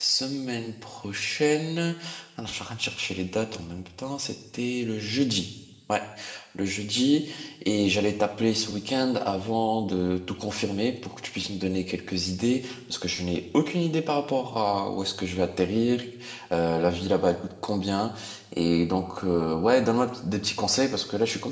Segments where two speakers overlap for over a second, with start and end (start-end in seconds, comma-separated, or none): none